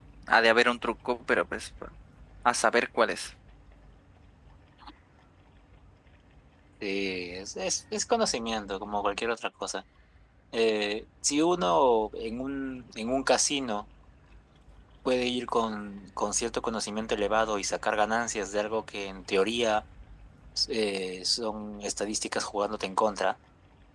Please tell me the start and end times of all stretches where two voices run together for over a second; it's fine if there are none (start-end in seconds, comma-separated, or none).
none